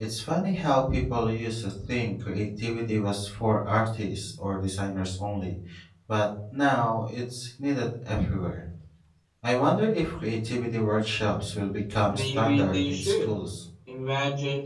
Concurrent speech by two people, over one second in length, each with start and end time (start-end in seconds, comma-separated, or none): 12.1-13.3